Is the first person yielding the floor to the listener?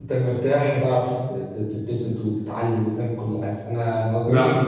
Yes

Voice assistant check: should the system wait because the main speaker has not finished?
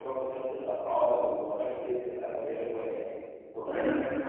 No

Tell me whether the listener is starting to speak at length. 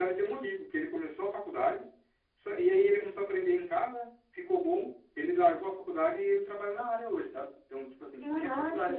No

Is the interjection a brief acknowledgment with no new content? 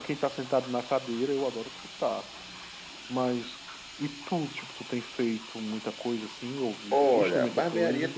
No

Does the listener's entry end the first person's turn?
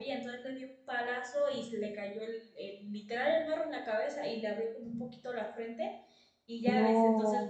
No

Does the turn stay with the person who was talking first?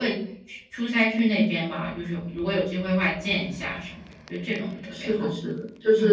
No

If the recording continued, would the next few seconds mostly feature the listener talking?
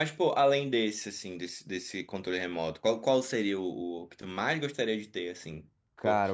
Yes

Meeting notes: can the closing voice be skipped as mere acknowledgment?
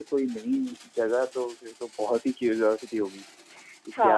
No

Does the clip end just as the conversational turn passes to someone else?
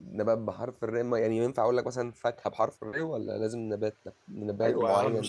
Yes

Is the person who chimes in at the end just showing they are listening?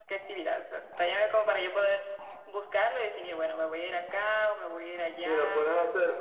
No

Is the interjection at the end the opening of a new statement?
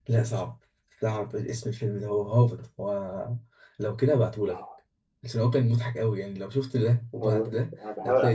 Yes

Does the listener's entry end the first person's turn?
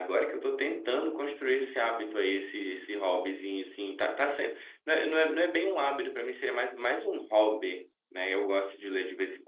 No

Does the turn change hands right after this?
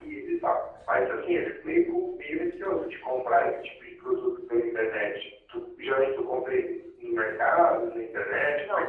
Yes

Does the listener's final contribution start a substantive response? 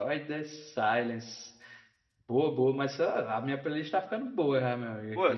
Yes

